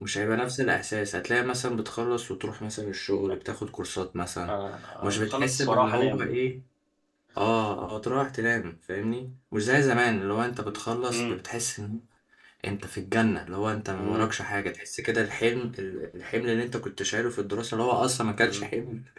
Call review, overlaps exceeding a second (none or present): present